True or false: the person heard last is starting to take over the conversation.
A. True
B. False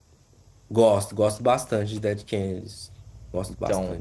A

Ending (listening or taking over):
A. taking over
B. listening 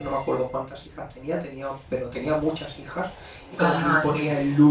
B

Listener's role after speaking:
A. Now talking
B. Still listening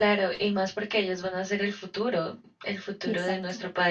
B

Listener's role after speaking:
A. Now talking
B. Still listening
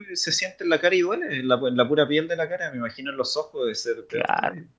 A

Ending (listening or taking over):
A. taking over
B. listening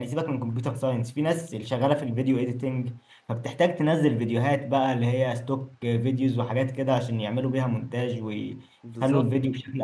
B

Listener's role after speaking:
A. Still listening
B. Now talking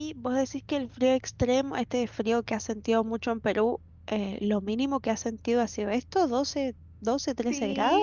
B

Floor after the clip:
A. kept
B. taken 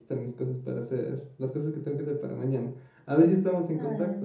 B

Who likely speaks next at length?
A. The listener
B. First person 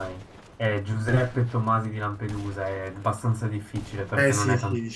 A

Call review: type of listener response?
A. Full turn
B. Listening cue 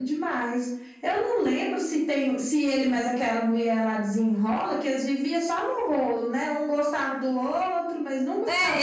A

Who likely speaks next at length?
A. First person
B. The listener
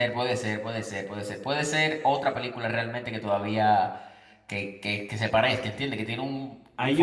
B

